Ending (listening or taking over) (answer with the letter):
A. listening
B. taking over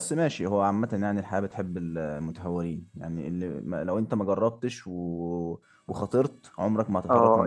B